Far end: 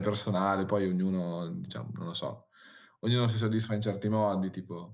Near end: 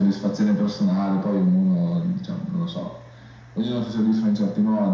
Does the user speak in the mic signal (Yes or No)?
No